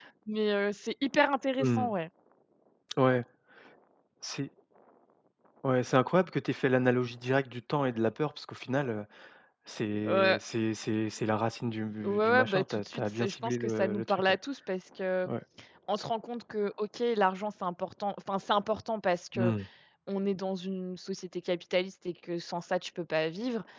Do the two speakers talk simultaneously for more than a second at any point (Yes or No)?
Yes